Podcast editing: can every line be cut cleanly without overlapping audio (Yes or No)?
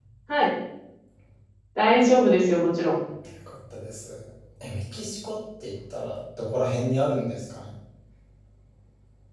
Yes